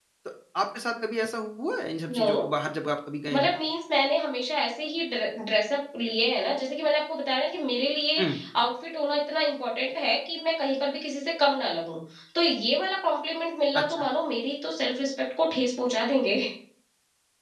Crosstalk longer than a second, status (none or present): none